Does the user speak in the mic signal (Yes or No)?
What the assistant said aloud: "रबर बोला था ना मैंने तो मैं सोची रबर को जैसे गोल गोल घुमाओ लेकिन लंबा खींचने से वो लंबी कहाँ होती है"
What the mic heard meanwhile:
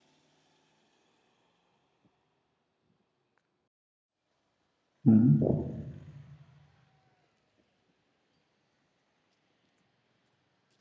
Yes